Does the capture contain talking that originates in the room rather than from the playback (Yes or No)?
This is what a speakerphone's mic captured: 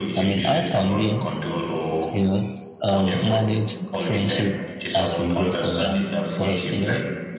Yes